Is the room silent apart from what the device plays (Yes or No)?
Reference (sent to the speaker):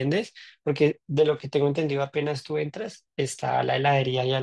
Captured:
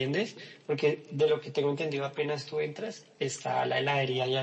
Yes